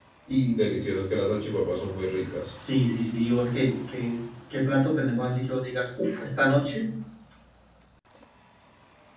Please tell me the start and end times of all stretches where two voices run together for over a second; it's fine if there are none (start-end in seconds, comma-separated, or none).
none